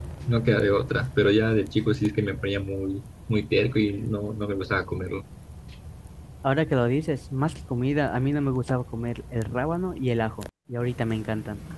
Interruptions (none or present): none